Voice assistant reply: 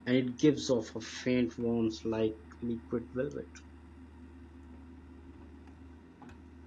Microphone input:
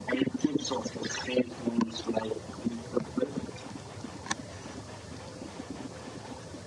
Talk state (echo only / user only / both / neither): echo only